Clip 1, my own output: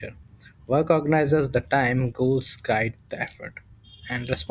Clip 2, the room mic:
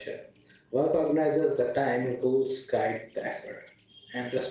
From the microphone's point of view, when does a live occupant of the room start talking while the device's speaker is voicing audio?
none

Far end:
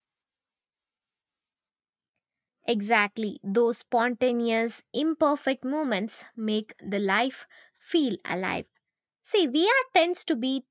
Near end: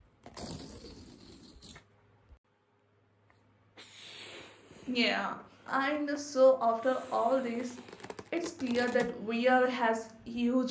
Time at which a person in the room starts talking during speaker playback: 4.9 s

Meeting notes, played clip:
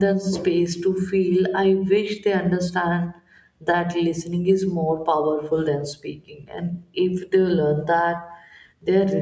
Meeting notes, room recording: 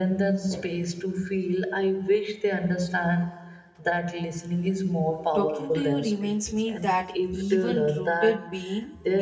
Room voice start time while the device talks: 5.3 s

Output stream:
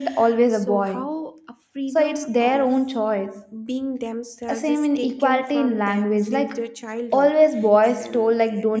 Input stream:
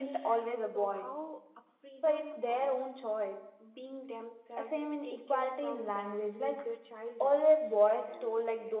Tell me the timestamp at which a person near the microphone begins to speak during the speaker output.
none

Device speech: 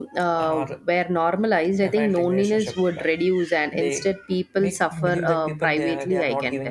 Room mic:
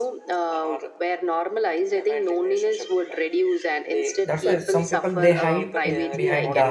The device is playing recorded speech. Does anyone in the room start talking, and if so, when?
4.2 s

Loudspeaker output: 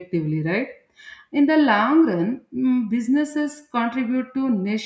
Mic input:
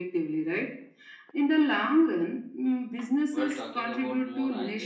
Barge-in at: 3.3 s

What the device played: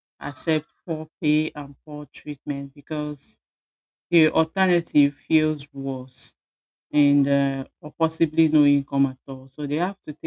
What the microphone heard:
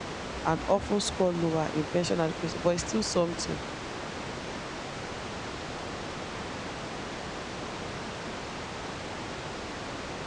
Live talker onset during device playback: 0.4 s

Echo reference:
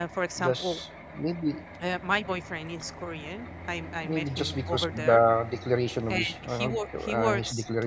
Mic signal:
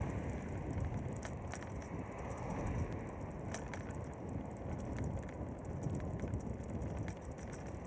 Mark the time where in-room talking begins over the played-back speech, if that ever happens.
none

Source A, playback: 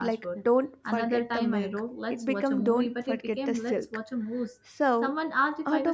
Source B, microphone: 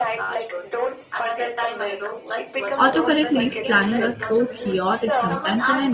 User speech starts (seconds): 2.8 s

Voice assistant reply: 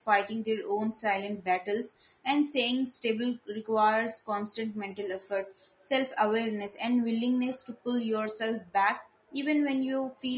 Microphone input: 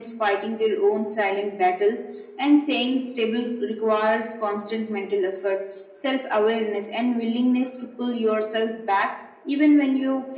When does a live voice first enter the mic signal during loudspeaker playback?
none

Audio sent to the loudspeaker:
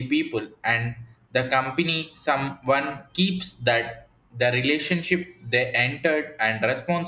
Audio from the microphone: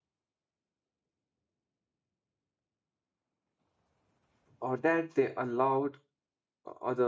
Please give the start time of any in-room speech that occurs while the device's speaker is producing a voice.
4.6 s

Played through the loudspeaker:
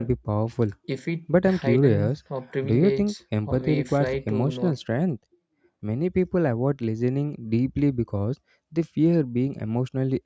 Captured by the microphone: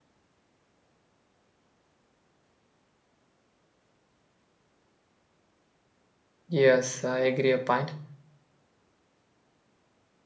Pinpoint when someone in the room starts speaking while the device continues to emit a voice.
6.5 s

